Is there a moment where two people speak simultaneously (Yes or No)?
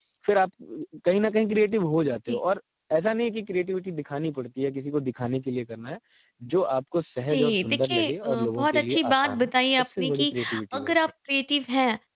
Yes